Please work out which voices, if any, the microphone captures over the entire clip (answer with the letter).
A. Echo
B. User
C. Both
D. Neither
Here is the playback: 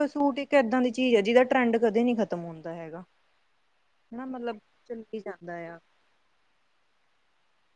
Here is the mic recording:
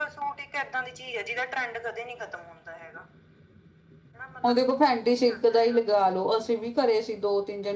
C